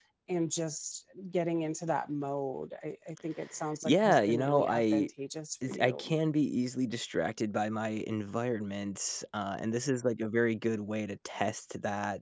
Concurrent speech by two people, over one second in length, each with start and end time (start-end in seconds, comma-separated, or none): 3.8-5.1